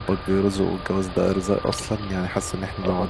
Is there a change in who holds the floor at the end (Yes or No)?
No